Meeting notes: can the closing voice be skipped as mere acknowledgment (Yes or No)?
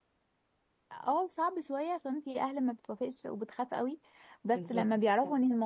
Yes